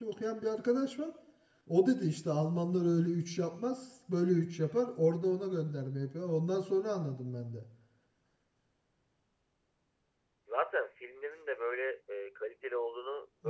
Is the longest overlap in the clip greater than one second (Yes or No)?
No